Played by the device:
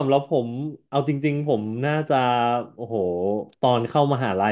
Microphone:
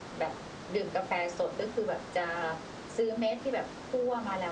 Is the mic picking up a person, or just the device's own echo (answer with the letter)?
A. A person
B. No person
A